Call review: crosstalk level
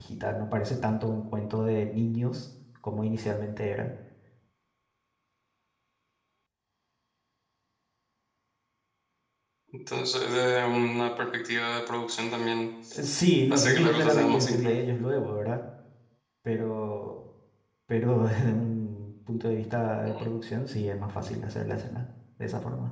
present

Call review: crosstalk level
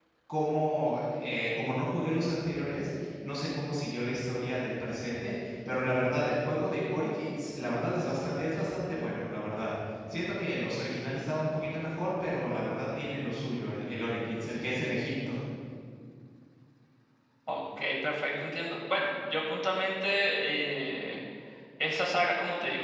none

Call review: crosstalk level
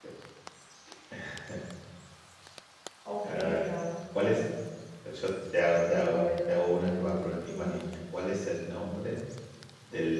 present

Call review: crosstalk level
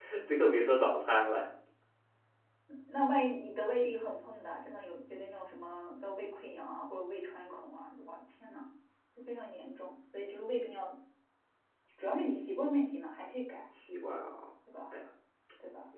none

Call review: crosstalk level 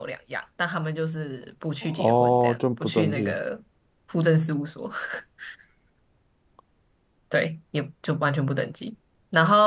present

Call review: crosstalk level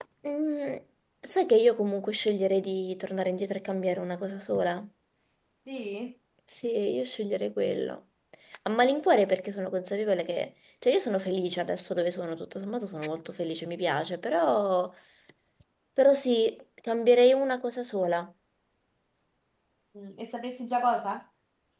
none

